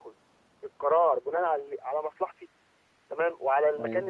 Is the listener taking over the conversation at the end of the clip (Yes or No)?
No